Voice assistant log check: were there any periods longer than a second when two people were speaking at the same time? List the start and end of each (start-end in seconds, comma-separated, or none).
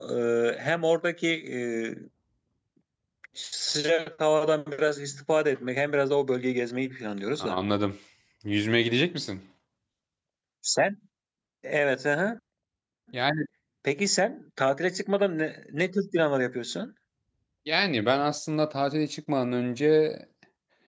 none